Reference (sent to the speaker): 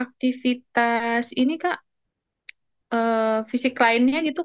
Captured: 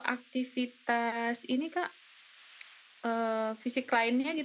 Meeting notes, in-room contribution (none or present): none